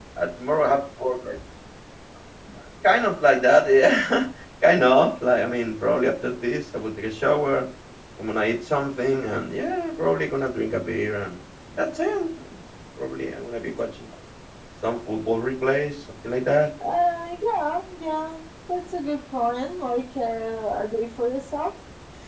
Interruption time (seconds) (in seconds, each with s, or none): none